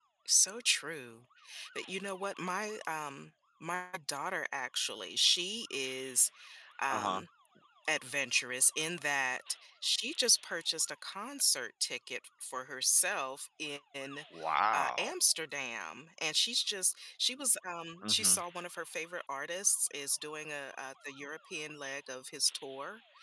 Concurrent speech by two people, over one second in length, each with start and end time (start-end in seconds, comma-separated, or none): none